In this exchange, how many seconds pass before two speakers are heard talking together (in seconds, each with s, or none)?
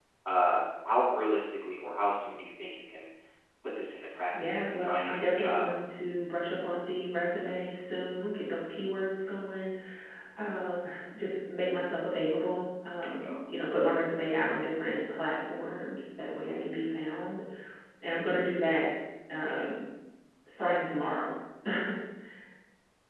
4.4 s